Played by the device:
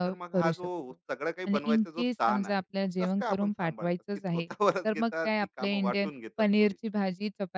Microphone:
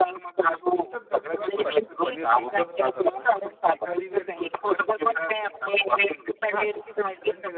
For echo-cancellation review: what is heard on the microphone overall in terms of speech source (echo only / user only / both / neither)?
both